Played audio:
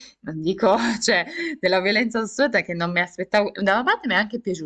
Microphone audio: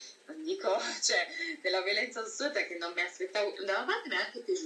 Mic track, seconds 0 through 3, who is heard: echo only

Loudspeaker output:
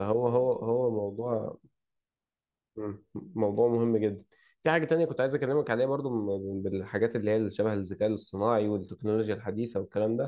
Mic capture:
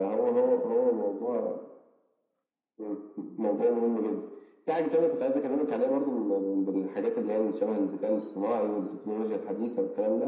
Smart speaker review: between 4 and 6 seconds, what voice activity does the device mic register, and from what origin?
echo only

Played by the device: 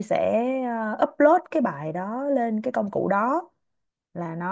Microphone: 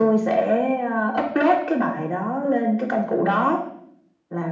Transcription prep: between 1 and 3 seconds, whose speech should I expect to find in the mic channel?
echo only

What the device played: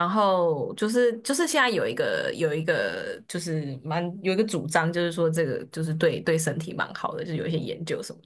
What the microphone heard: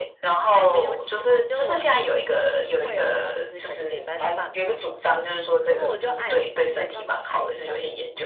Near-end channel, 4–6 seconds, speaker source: both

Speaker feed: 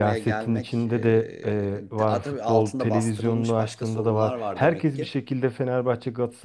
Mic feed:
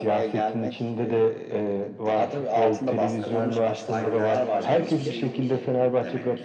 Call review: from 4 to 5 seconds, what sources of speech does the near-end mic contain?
both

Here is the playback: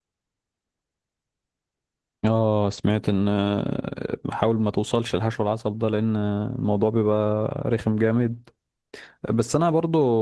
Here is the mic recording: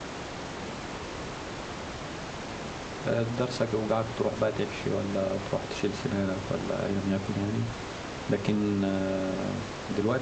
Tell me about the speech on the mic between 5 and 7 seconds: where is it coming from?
user only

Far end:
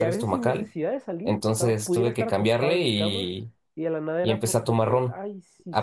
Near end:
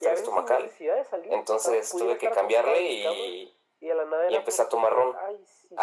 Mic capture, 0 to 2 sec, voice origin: echo only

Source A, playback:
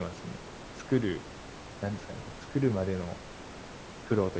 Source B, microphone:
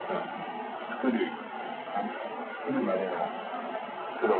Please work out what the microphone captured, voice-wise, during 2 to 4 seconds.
both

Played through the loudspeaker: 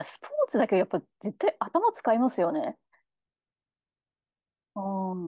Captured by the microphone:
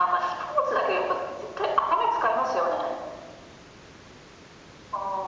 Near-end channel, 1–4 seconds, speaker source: echo only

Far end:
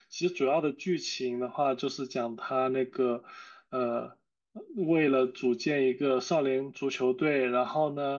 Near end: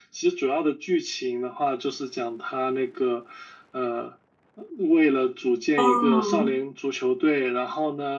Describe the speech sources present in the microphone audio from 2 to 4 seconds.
echo only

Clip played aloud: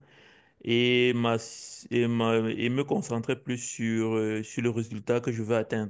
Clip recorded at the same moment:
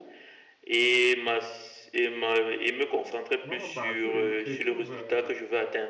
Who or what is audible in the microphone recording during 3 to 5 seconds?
both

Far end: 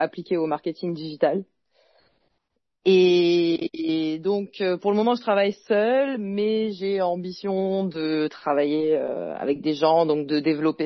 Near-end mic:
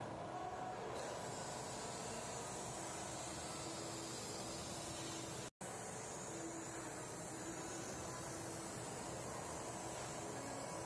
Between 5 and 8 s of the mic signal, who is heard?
neither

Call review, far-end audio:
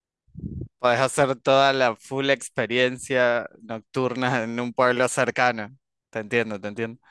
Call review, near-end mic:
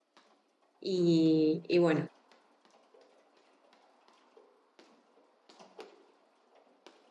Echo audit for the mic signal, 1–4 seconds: user only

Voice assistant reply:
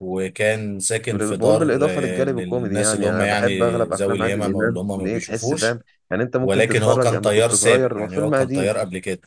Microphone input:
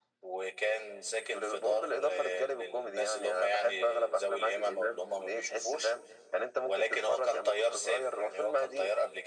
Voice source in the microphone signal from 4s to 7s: echo only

